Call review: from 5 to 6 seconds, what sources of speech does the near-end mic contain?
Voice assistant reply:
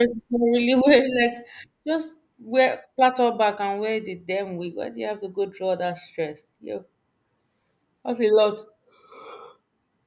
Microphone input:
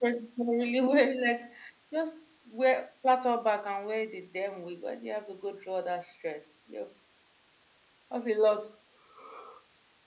echo only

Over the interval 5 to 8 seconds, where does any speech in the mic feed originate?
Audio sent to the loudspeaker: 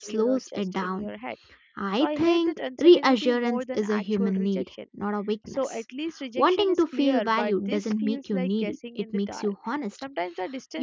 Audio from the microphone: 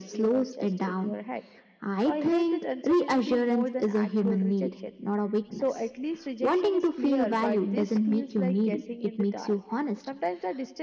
echo only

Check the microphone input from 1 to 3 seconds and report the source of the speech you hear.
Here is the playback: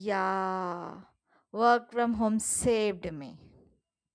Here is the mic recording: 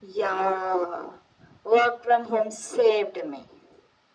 echo only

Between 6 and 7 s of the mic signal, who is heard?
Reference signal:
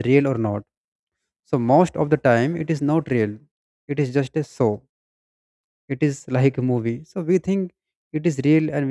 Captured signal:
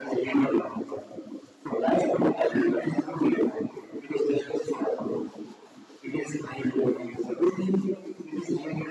echo only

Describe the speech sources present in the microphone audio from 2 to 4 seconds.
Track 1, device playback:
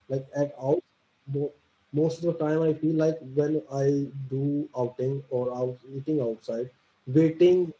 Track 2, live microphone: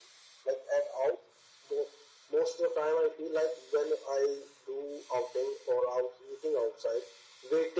echo only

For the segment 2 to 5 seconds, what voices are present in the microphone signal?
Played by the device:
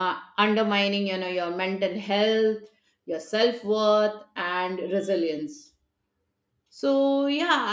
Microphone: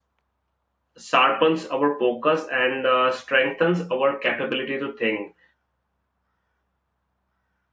user only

